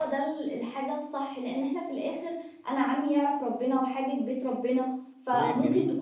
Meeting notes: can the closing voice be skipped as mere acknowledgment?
Yes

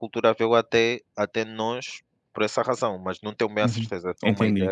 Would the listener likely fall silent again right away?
No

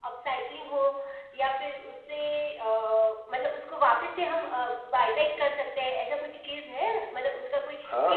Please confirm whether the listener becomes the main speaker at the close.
Yes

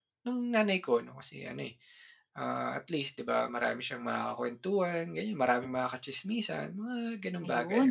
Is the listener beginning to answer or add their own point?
Yes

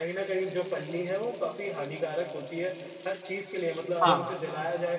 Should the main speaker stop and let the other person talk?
No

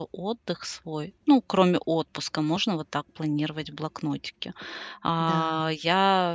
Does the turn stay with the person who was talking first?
Yes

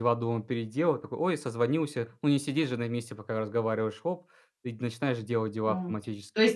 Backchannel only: No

